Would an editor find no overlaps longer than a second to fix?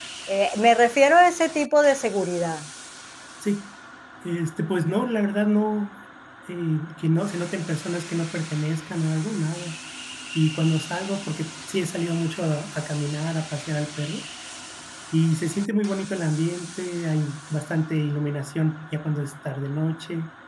Yes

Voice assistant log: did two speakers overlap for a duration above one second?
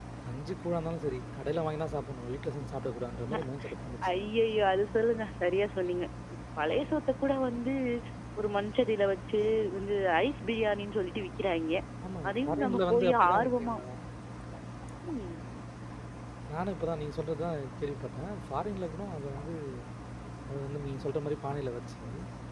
Yes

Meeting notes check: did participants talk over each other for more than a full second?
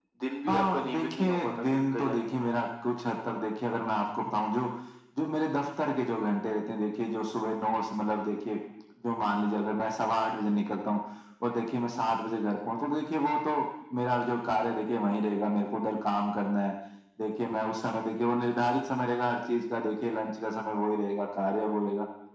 Yes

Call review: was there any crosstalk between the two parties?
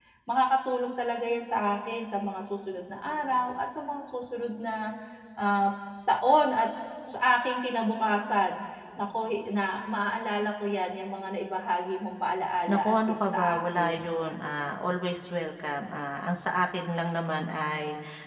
Yes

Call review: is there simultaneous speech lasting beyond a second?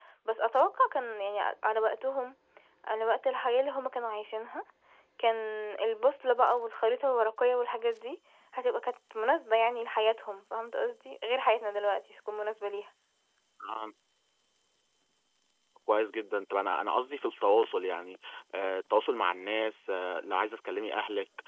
No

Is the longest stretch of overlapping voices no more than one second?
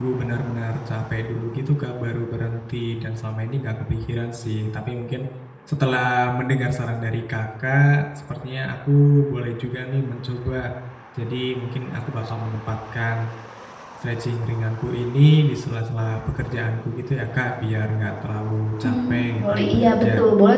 No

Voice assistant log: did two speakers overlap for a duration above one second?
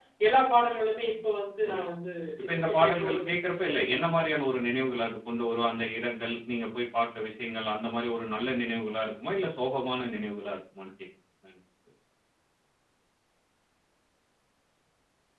Yes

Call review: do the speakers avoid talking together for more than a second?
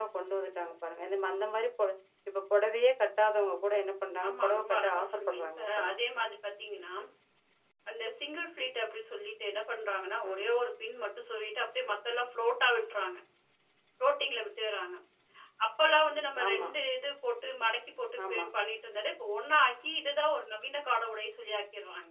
No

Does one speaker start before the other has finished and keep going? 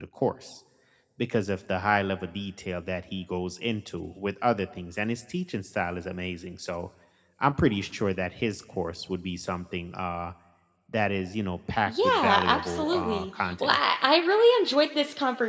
Yes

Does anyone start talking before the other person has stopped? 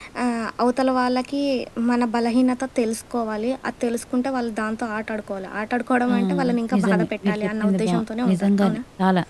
Yes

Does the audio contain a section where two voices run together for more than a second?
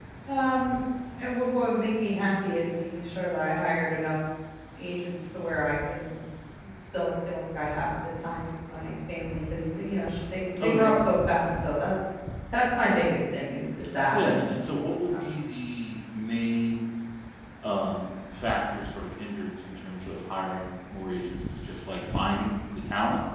No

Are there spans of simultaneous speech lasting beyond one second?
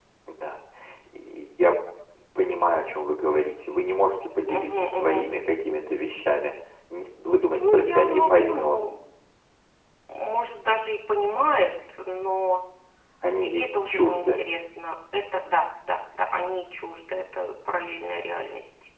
Yes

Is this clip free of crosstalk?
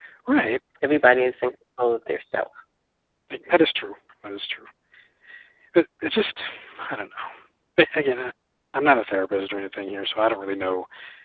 Yes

